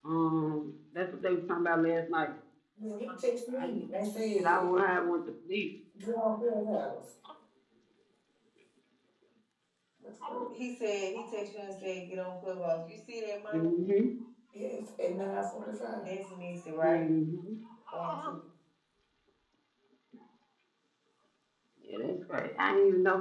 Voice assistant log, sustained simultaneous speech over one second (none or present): none